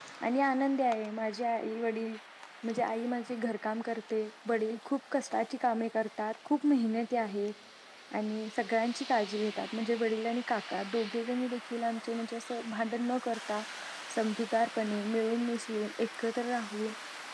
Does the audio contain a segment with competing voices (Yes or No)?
No